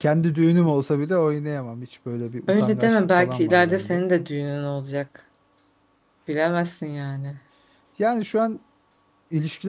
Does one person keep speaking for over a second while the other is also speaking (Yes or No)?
Yes